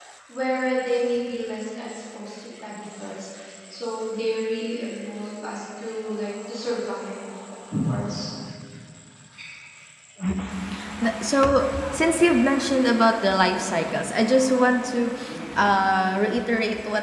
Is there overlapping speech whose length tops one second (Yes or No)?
No